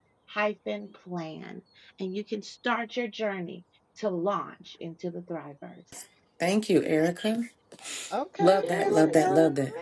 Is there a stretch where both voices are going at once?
Yes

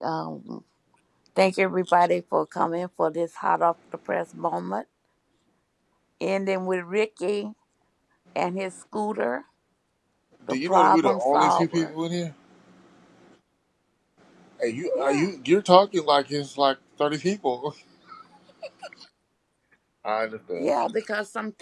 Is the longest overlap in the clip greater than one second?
Yes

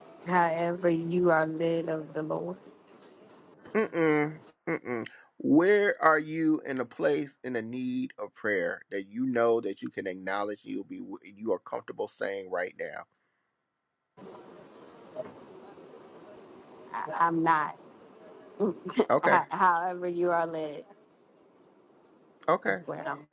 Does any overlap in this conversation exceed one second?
No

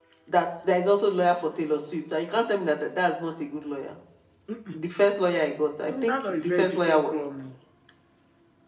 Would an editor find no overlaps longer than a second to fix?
No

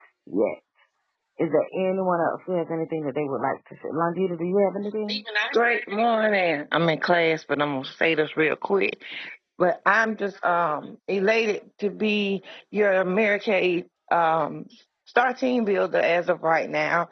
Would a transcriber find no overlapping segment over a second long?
Yes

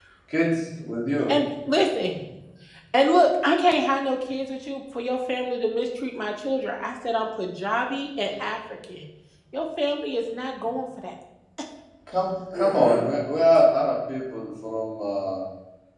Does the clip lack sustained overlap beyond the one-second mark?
Yes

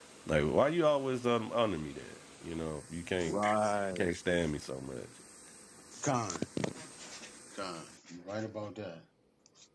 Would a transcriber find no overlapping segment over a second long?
Yes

